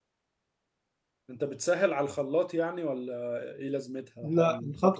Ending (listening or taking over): taking over